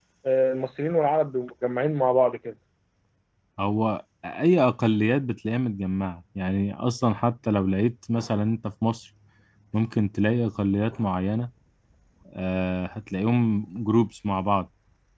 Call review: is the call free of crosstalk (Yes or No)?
Yes